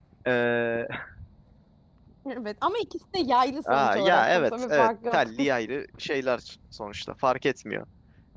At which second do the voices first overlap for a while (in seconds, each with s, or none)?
3.7 s